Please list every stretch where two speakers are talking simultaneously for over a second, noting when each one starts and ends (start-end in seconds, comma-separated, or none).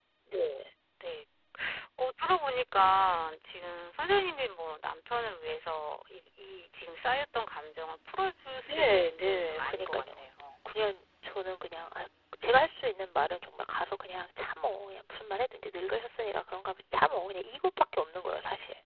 8.6-10.1